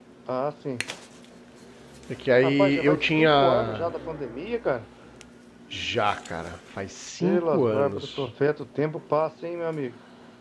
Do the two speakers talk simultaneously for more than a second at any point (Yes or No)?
Yes